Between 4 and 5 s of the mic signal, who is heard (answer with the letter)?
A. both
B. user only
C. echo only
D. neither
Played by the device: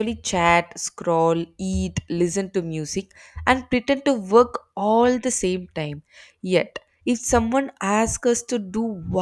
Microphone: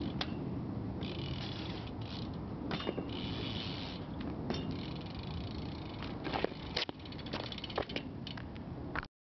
D